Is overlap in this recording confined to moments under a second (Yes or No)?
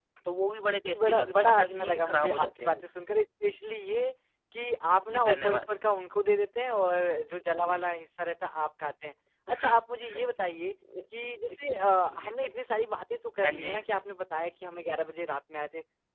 No